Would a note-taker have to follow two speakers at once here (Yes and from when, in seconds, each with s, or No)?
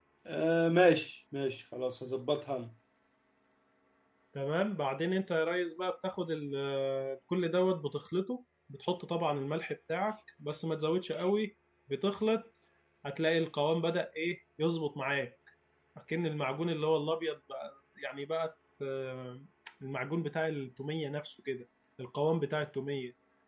No